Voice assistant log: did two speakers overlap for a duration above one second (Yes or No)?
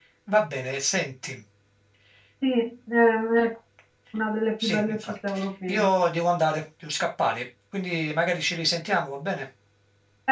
Yes